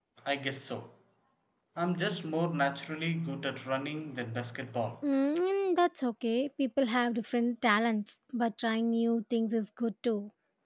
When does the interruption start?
none

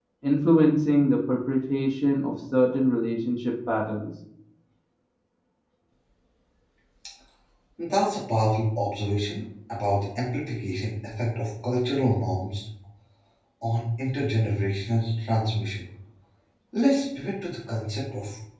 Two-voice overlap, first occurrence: none

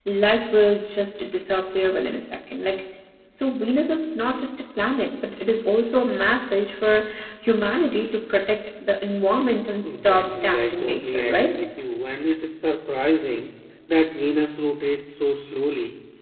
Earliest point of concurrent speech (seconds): 9.8 s

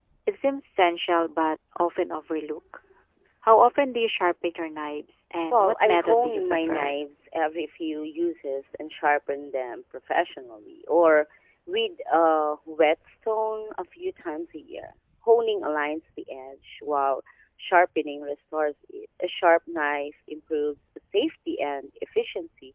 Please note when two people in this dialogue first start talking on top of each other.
5.5 s

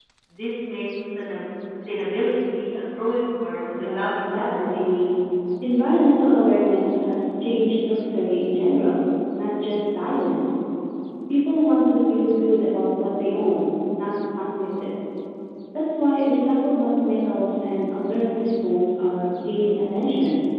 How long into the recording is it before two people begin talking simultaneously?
3.7 s

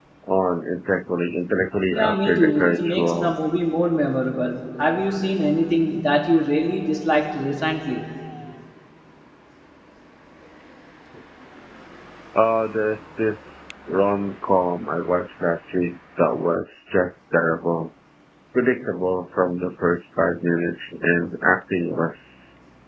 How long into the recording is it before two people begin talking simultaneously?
1.9 s

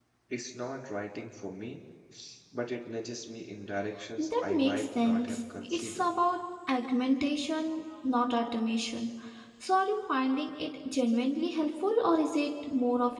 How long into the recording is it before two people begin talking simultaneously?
4.2 s

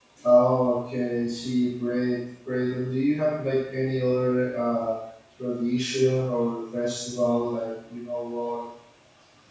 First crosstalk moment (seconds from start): none

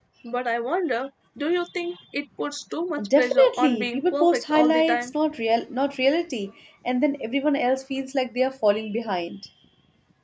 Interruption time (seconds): 3.0 s

